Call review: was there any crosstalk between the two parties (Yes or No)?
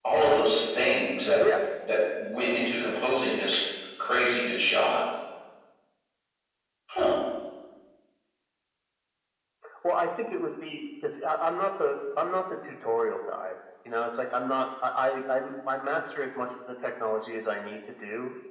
No